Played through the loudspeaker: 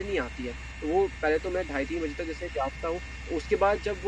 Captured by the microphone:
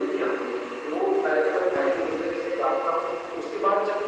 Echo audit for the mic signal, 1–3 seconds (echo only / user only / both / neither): echo only